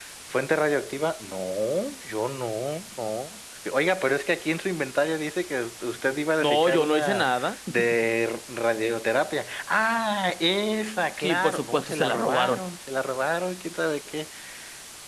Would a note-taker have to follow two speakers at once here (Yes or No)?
Yes